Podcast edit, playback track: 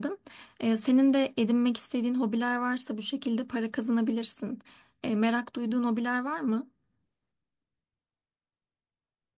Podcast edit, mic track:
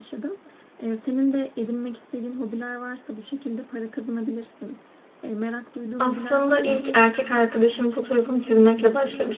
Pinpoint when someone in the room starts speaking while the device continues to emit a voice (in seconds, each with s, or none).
6.0 s